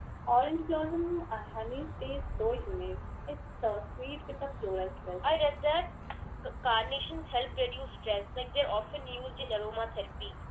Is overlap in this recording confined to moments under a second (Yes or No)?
Yes